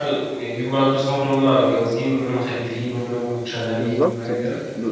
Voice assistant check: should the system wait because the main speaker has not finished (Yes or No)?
No